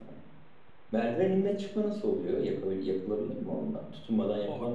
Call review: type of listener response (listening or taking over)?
taking over